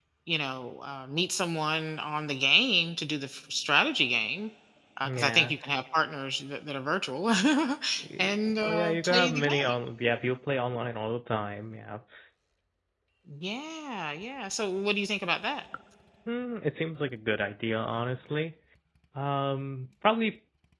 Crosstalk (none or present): present